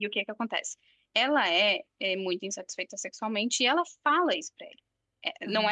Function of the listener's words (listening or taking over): taking over